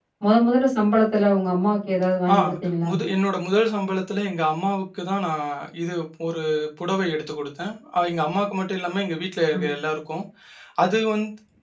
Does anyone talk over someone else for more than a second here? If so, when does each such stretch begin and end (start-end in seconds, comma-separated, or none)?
none